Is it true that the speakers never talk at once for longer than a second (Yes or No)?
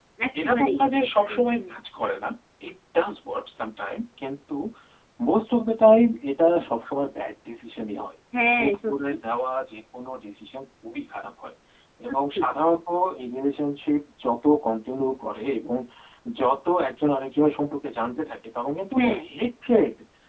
No